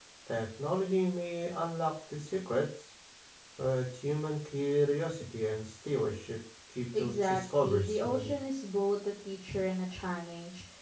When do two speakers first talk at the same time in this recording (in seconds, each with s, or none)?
6.9 s